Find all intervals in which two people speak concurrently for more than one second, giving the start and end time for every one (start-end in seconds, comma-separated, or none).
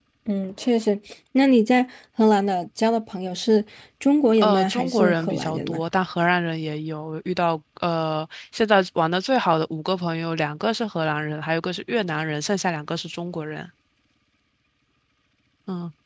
4.4-5.8